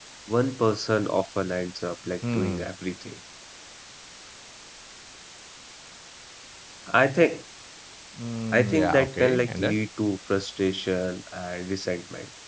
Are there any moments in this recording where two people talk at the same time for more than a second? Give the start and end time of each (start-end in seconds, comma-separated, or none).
8.5-9.8